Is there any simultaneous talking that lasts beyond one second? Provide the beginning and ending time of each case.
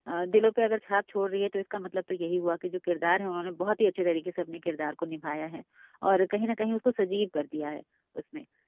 none

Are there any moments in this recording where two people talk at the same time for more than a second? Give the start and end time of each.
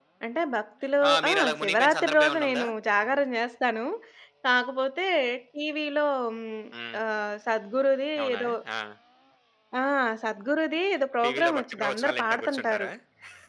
1.3-2.6, 11.2-12.9

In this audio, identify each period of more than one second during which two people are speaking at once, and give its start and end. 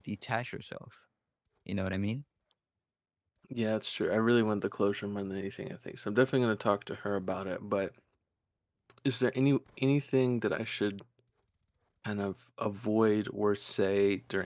none

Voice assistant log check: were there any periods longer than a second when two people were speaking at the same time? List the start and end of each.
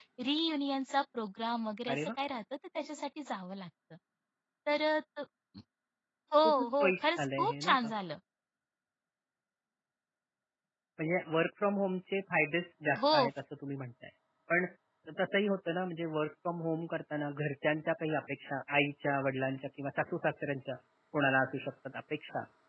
6.4-7.9

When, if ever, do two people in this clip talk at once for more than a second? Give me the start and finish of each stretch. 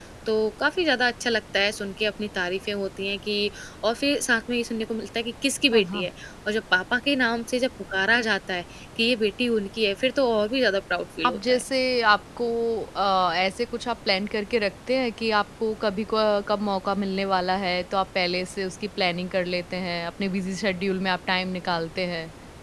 none

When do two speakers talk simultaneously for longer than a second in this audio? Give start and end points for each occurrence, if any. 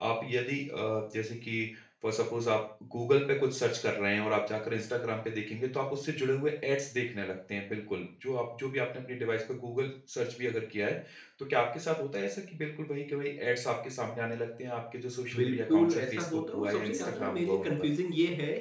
15.3-17.7

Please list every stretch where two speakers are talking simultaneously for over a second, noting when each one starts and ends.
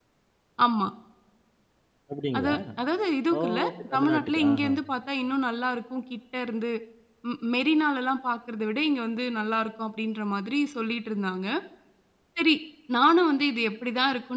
3.4-4.7

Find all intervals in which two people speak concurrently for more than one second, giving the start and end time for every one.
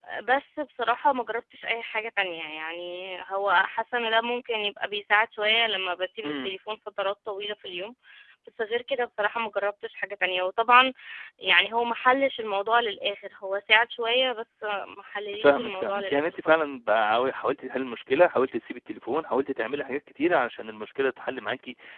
15.4-16.7

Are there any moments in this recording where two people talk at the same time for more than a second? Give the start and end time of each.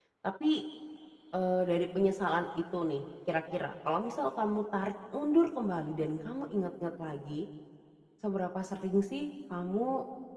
none

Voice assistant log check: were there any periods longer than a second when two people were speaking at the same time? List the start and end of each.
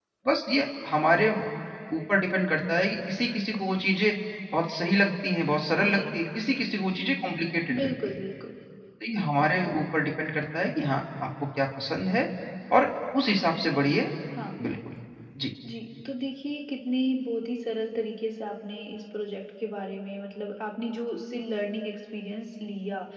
none

